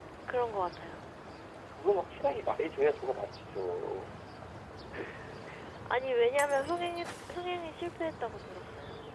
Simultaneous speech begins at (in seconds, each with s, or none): none